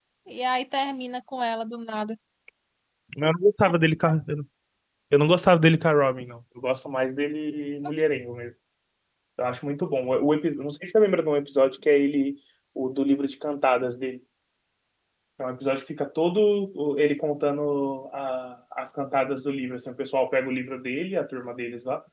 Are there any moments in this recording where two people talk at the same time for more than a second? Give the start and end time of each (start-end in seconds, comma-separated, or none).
none